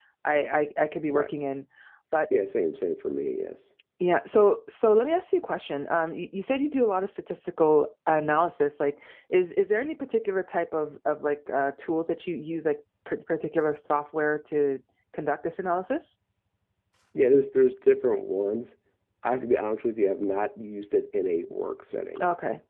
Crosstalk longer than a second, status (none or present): none